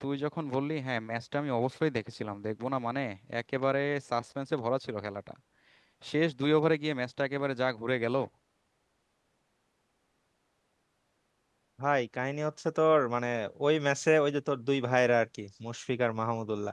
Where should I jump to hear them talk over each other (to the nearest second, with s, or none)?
none